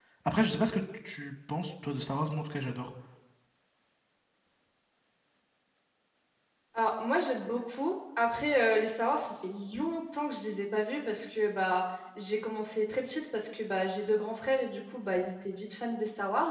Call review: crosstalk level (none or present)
none